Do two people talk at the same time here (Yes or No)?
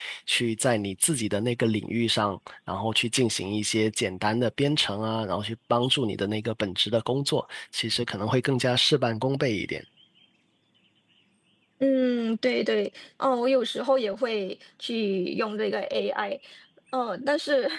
No